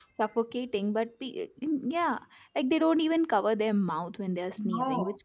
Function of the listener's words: listening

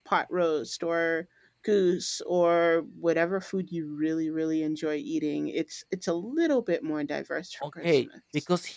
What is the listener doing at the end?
taking over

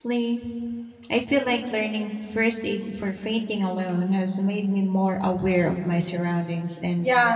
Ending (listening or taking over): taking over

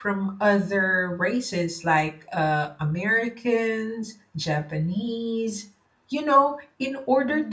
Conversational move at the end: listening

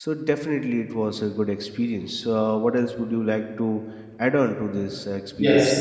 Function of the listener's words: taking over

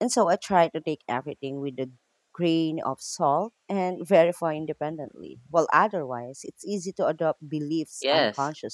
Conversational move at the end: taking over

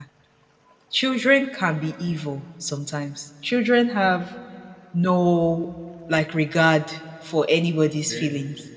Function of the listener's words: listening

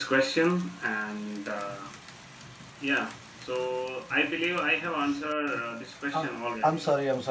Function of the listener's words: taking over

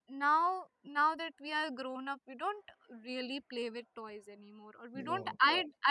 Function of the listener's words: listening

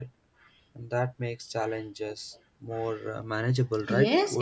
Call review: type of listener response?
taking over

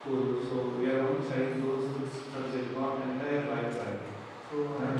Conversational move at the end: listening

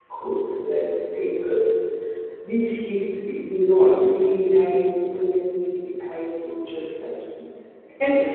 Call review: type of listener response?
taking over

